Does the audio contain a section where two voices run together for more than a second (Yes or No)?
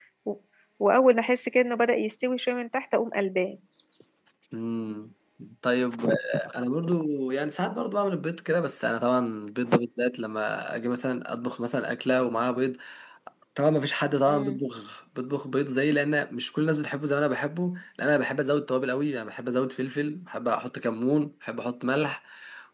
No